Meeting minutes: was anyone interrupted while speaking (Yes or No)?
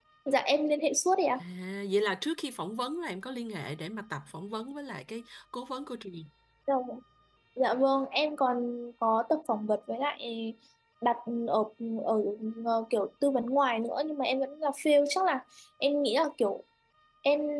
No